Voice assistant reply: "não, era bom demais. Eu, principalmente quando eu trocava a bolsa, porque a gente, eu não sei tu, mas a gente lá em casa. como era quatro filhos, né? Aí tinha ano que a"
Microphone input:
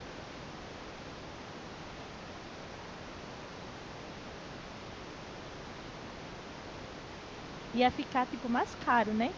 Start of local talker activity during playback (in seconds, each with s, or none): 7.7 s